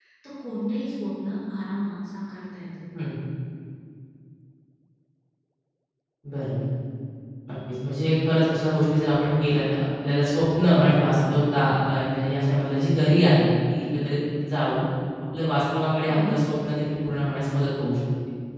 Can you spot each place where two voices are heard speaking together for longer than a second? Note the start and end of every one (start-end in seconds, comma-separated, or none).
none